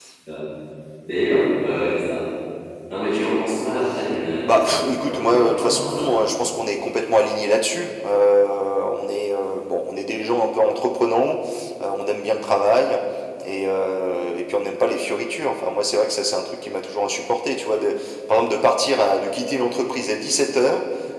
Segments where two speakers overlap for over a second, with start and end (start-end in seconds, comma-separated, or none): 4.5-6.1